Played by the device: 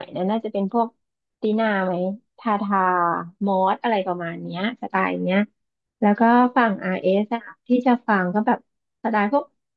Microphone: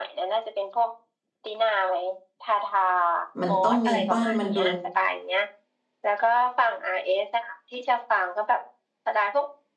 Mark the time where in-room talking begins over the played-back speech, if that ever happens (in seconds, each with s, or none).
3.4 s